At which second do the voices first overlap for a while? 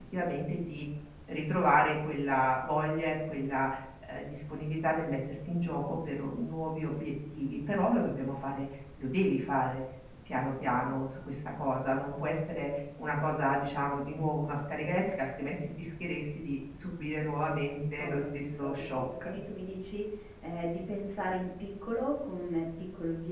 18.0 s

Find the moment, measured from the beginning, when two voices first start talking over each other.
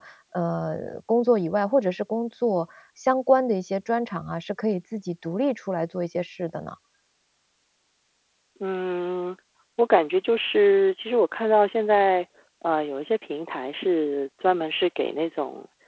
none

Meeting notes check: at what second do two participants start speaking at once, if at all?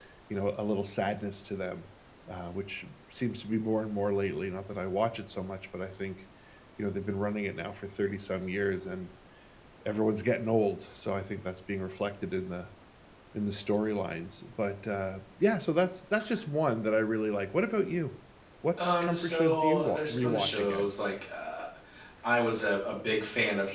19.0 s

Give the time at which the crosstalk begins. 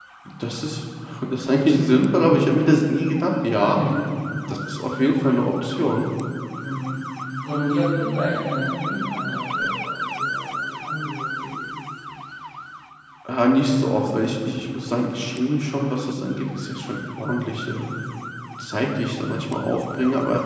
none

